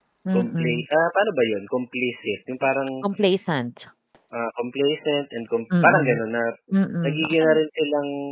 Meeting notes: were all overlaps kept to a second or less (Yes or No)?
Yes